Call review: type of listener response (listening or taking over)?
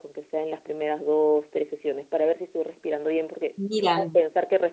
listening